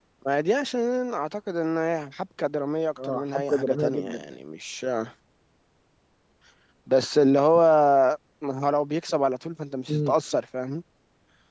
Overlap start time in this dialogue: 3.0 s

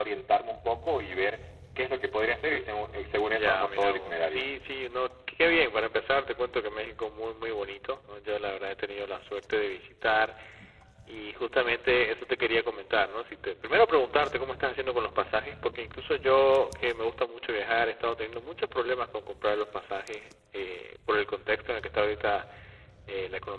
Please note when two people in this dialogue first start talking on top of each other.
2.7 s

